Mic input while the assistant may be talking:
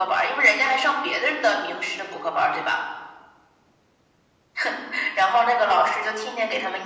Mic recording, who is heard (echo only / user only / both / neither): echo only